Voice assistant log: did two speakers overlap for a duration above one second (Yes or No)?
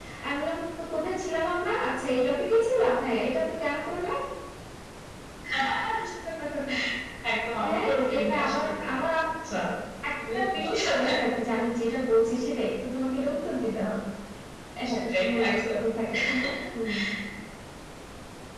Yes